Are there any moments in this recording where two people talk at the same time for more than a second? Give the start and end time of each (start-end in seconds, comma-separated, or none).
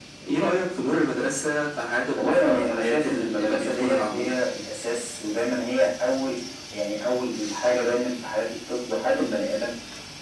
2.2-4.3